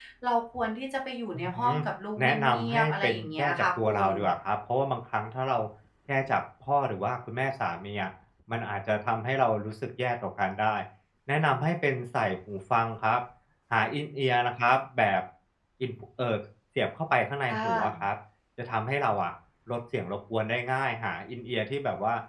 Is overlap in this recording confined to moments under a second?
No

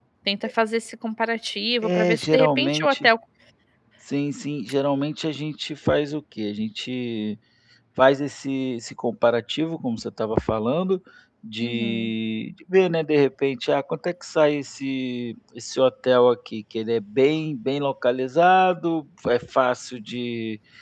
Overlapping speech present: Yes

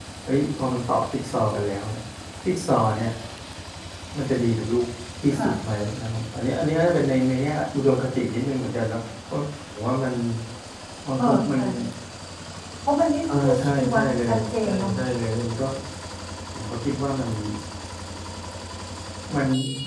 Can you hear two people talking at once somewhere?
Yes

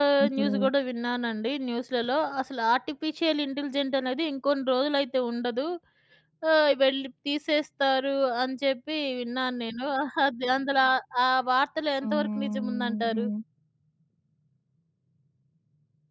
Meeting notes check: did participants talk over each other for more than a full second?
Yes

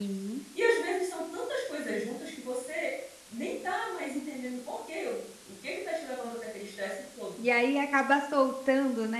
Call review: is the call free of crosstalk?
Yes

